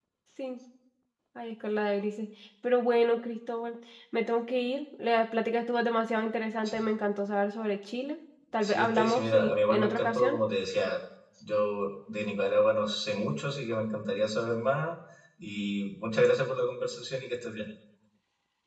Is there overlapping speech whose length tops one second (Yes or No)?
Yes